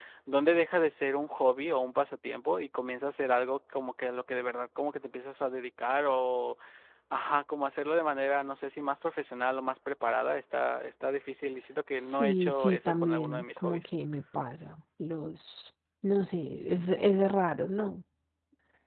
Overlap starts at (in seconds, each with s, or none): 12.0 s